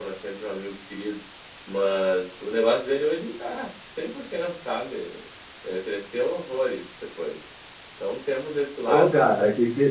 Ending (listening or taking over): taking over